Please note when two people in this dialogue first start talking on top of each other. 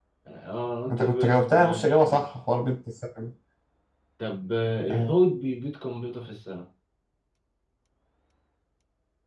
0.9 s

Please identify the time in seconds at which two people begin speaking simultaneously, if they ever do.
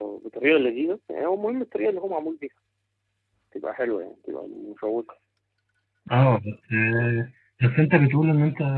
none

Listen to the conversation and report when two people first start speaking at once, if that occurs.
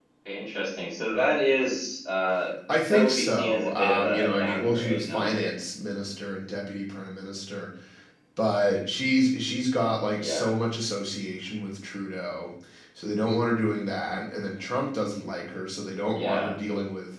2.9 s

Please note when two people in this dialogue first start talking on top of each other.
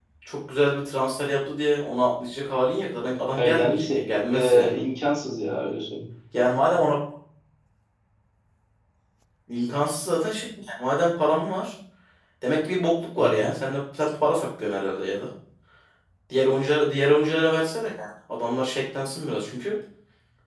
3.4 s

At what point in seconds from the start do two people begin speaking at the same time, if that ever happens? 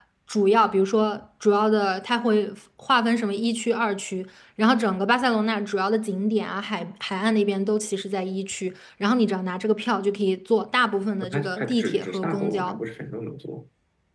11.2 s

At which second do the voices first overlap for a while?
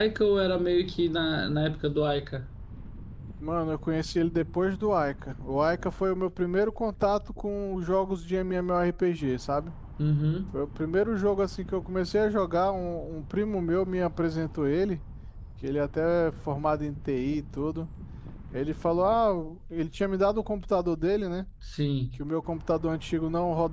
none

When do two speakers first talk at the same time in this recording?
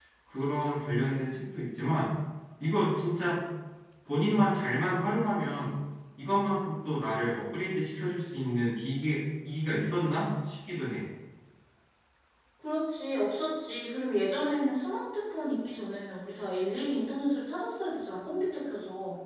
none

